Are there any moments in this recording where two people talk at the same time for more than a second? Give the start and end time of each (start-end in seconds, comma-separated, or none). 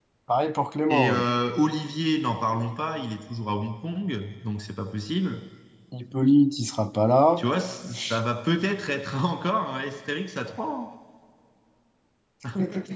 none